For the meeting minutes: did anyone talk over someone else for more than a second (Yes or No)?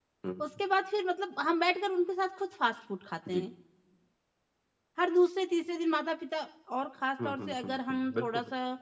Yes